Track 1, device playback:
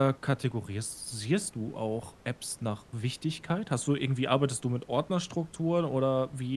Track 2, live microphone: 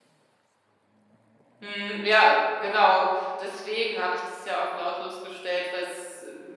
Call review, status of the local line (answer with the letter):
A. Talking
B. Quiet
A